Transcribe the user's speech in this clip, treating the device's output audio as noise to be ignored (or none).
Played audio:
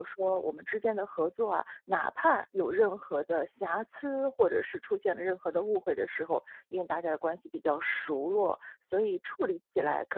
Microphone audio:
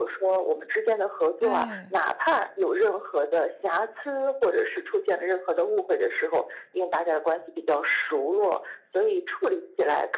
对，